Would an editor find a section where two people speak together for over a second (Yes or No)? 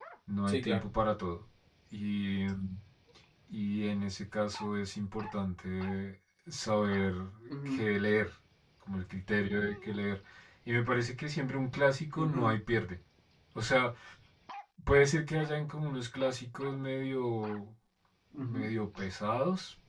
No